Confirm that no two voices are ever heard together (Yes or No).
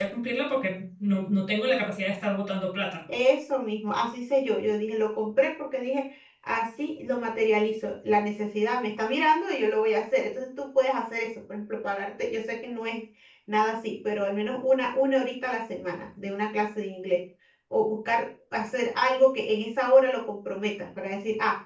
Yes